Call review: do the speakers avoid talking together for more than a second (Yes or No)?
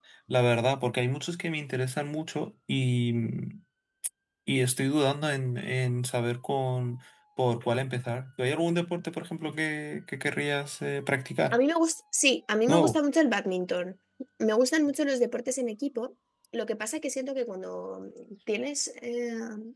Yes